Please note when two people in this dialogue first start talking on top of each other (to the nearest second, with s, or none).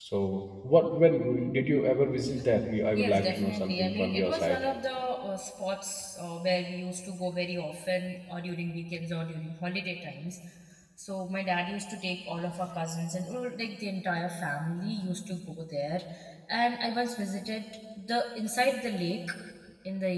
3 s